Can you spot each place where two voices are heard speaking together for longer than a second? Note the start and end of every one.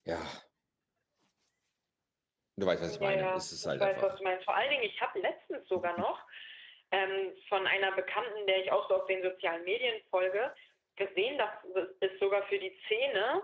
2.9-4.1

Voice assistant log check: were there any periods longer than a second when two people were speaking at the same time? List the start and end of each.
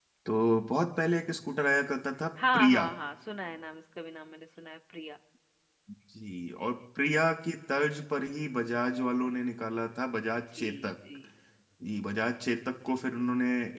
none

